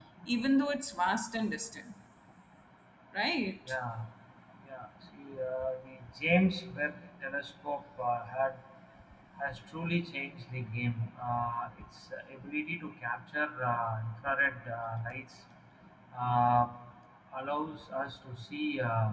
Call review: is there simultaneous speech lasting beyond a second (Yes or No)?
No